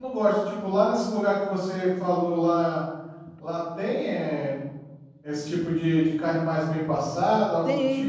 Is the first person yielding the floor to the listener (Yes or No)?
Yes